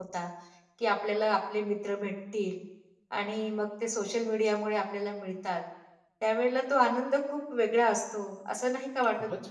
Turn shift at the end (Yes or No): Yes